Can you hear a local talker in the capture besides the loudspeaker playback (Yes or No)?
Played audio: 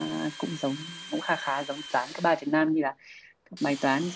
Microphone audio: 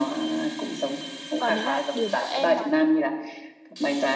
Yes